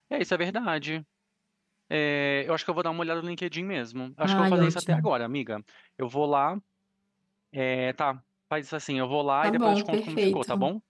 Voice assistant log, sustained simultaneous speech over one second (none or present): present